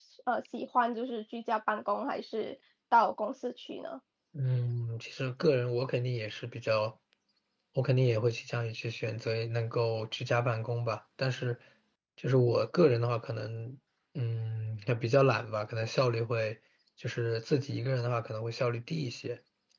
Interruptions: none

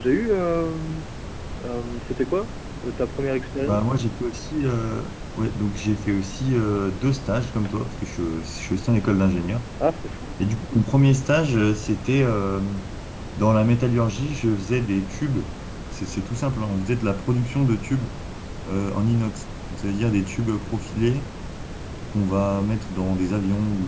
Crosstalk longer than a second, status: none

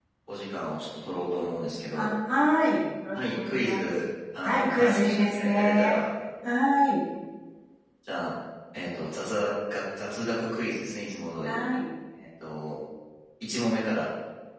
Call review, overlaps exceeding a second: present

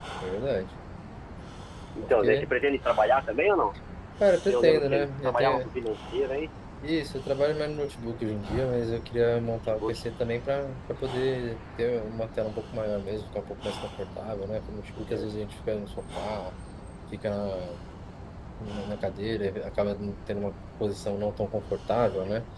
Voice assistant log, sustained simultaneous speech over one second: present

